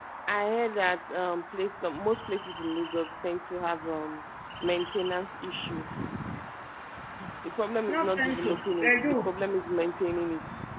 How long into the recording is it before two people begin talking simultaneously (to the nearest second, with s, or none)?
8 s